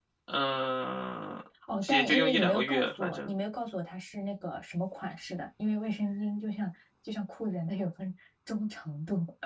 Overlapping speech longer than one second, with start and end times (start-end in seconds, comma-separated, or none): 1.9-3.3